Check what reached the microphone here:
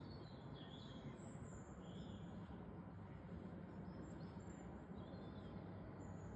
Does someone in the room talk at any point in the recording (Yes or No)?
No